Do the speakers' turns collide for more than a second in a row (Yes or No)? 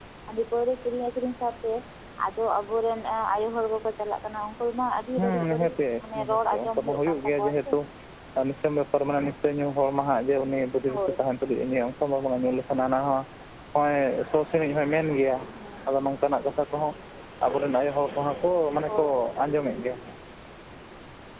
Yes